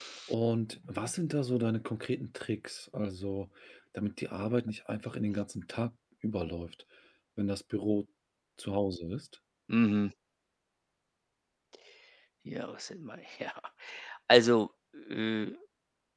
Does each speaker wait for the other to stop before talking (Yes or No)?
Yes